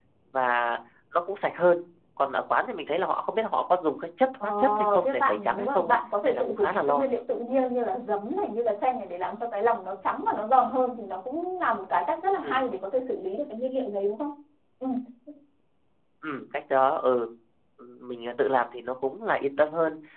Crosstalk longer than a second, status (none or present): present